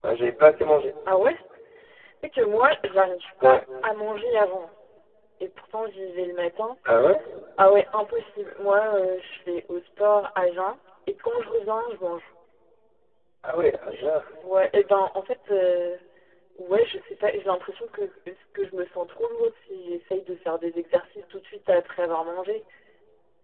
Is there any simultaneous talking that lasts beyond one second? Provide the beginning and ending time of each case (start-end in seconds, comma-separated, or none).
none